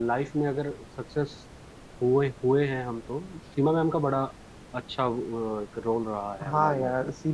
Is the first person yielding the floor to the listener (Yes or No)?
Yes